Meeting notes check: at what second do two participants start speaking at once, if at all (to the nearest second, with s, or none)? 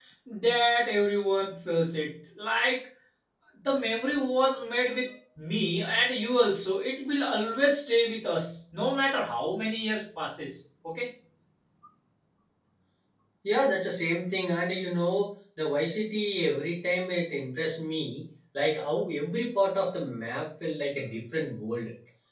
none